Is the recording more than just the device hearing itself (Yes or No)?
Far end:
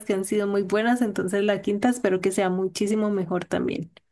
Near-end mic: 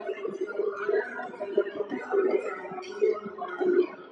No